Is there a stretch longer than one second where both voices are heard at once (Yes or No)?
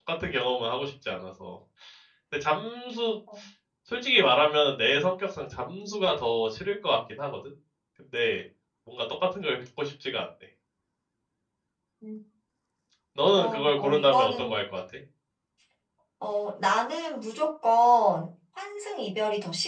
Yes